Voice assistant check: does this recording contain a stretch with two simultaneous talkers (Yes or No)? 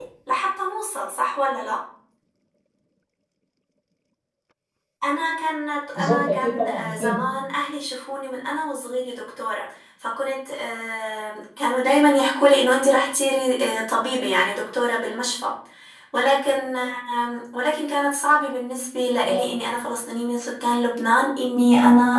Yes